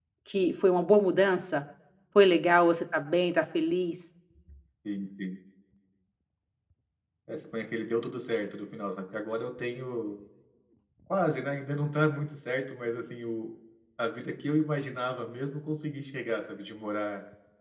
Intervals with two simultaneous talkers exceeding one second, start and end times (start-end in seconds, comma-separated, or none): none